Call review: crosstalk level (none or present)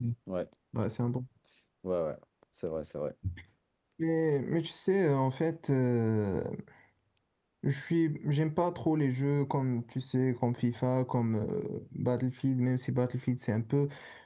none